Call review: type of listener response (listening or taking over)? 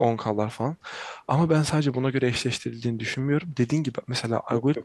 listening